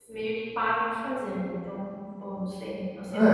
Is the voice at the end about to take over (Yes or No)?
Yes